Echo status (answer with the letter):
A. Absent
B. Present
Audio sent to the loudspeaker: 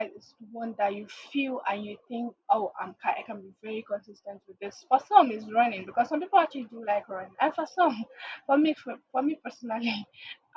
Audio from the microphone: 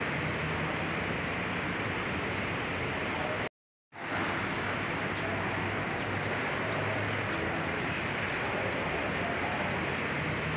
A